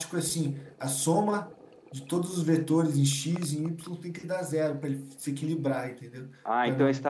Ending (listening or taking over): taking over